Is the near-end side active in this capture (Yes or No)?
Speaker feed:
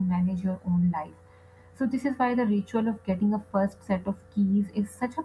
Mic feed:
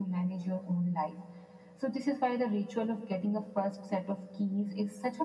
No